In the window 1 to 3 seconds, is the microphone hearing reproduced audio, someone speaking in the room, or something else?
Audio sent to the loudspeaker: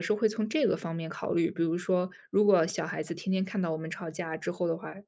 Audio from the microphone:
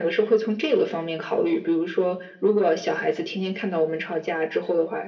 echo only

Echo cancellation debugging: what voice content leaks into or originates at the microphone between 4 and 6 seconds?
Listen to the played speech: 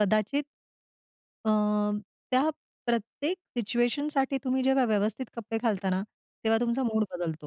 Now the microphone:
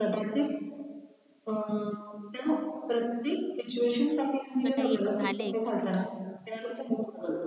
both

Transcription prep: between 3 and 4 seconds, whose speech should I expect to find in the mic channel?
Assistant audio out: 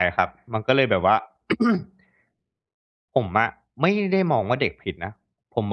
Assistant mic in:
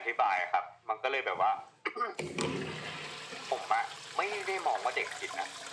echo only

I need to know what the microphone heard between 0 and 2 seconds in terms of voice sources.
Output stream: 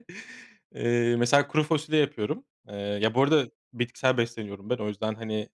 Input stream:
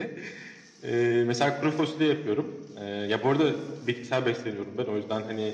echo only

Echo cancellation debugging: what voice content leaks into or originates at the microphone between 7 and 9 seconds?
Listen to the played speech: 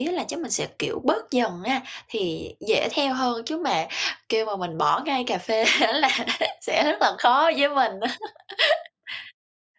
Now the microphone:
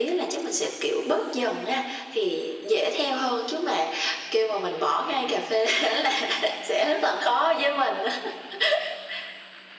echo only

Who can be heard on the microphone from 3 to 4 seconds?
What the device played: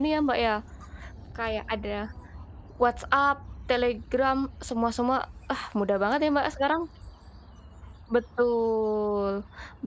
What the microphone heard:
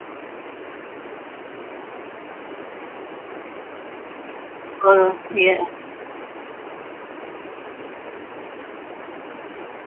neither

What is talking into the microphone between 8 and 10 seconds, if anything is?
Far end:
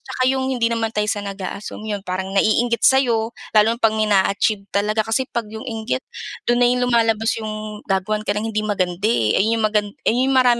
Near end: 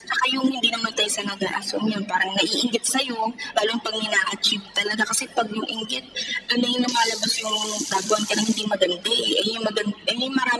echo only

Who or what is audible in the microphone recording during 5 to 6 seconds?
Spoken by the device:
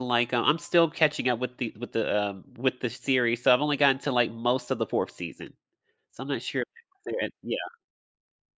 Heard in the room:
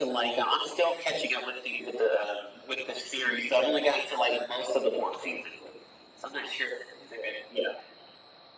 echo only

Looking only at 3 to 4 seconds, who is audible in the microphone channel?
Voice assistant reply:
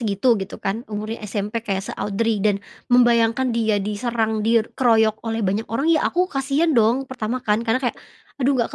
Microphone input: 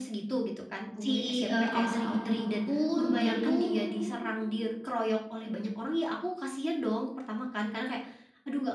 both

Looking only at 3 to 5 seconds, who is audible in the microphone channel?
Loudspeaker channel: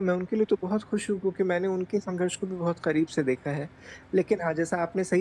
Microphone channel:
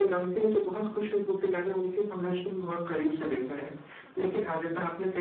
echo only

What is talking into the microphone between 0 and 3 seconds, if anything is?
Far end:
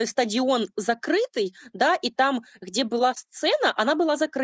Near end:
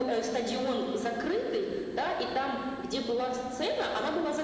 echo only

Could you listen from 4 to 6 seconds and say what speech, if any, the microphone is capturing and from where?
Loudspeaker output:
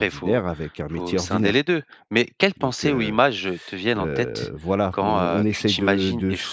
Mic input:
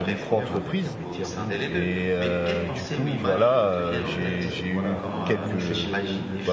both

